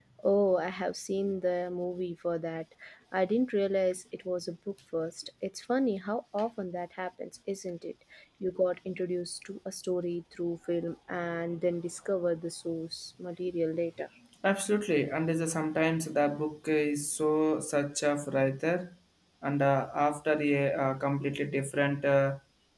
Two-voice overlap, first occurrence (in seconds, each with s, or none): none